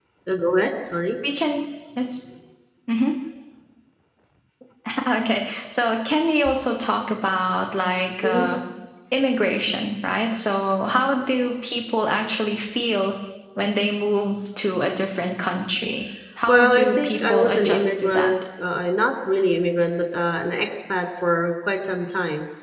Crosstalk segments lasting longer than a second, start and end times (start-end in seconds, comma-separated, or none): 16.5-18.3